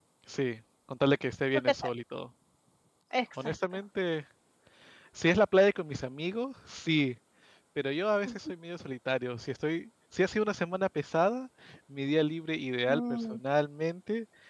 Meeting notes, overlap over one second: none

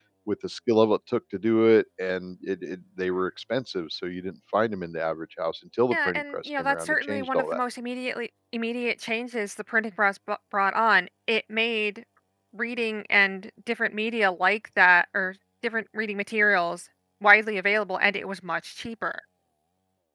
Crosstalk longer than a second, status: present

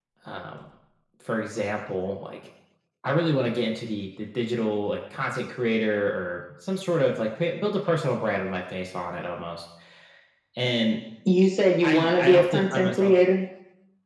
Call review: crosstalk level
present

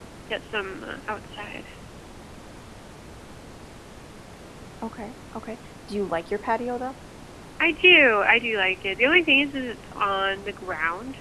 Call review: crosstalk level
none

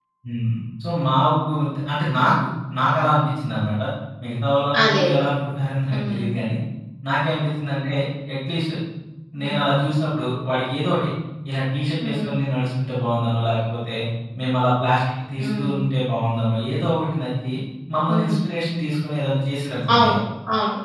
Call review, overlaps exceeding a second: none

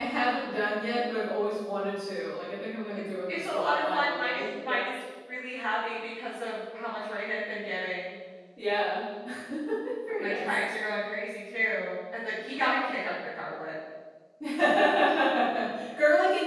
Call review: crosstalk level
present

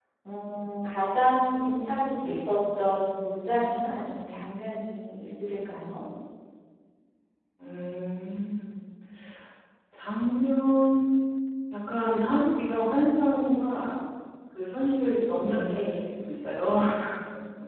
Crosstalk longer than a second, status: none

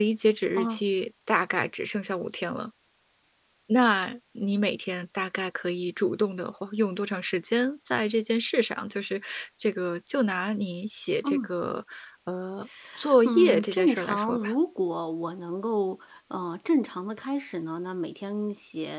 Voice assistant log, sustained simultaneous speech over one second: present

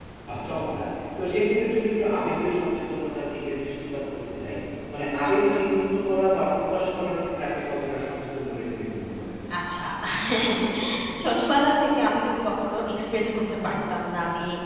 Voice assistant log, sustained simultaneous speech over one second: none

